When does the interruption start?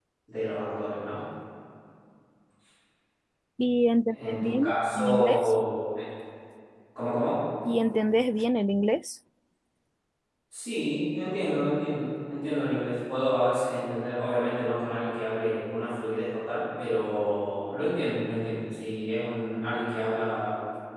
4.1 s

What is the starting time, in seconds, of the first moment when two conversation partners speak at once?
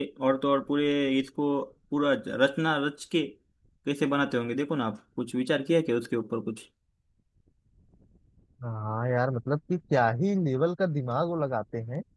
none

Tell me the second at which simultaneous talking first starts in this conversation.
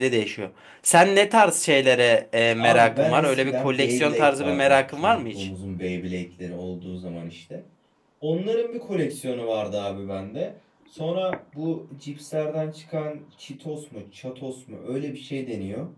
2.6 s

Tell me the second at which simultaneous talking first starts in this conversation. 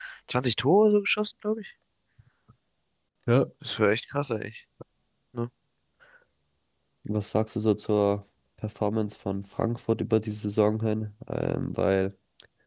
none

